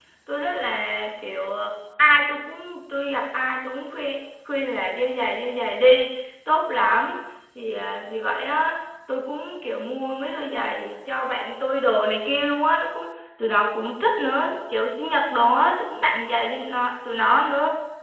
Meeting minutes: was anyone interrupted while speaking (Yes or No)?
No